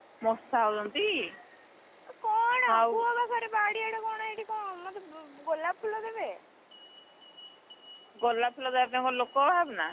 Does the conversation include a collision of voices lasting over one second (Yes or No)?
No